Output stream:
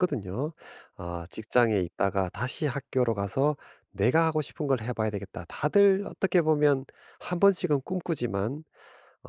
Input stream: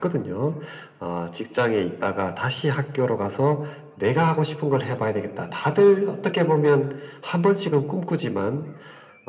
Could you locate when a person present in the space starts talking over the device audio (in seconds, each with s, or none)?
none